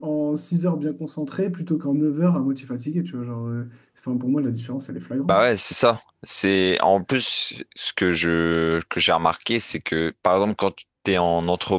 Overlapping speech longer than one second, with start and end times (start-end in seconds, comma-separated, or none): none